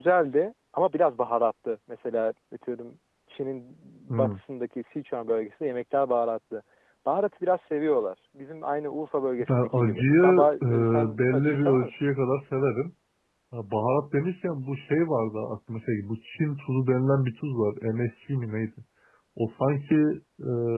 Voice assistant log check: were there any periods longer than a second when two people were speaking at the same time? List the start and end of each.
9.4-12.0

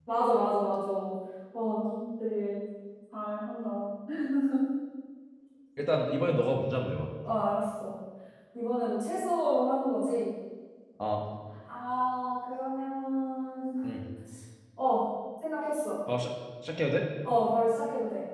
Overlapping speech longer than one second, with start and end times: none

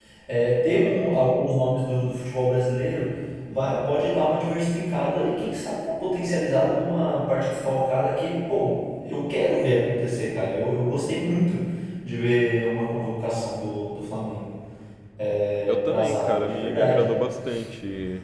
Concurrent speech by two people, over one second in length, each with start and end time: 15.7-17.1

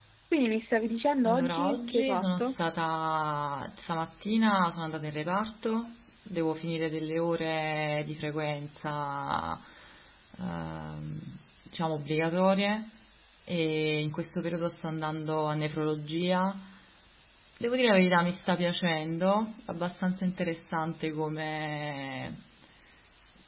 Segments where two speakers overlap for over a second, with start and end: 1.2-2.5

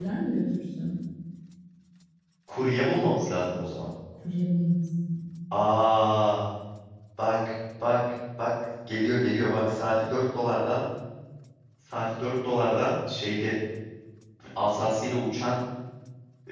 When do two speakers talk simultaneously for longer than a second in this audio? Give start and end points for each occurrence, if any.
none

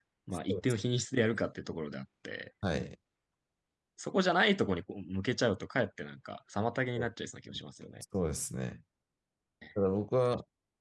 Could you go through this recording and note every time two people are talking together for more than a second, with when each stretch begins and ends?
none

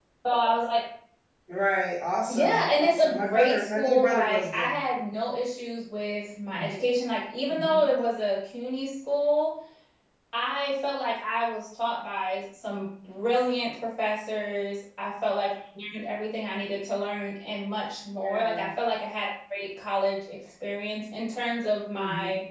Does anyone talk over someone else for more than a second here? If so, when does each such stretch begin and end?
2.3-4.8

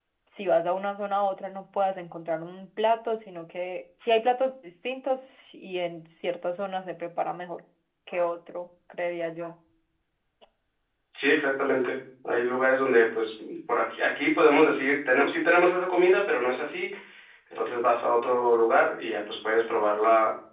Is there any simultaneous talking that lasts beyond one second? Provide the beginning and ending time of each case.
none

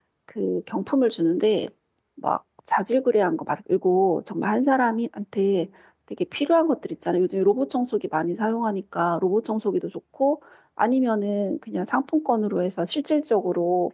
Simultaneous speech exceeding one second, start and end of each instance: none

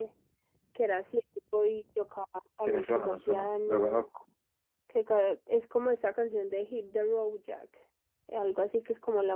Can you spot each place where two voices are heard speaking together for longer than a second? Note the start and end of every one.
2.6-4.0

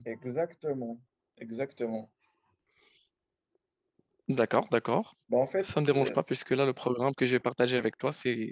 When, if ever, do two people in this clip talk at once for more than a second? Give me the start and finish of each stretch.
none

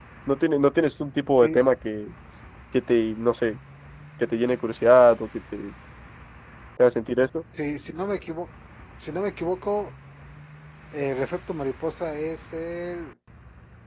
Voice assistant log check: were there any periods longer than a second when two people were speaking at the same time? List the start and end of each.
none

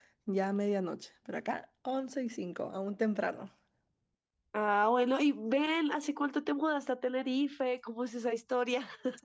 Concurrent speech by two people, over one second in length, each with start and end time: none

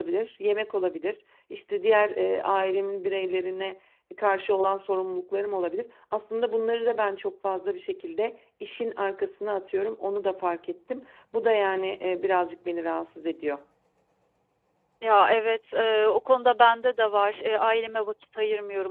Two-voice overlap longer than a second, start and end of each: none

